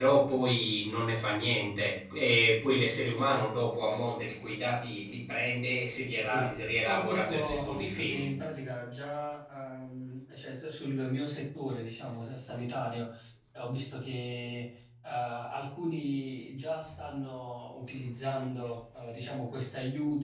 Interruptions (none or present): present